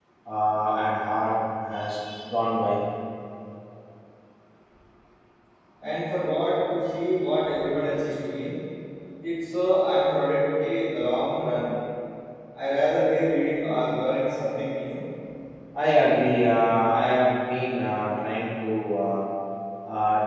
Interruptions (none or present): none